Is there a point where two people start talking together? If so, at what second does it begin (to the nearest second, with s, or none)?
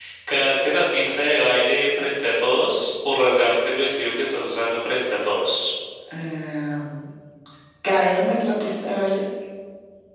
none